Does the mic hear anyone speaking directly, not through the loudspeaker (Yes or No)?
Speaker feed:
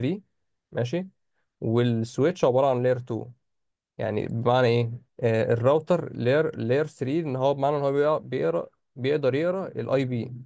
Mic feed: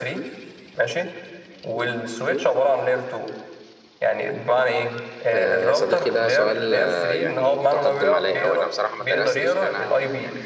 Yes